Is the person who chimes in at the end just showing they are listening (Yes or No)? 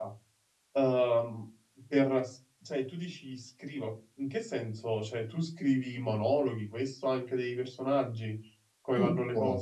No